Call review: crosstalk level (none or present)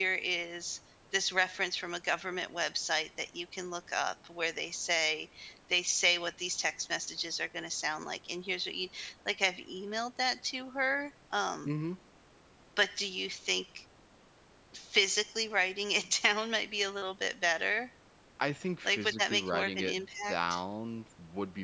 present